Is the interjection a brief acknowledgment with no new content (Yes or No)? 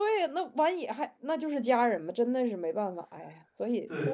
No